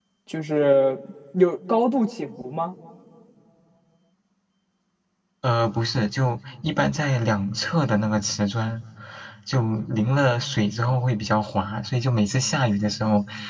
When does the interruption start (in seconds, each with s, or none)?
none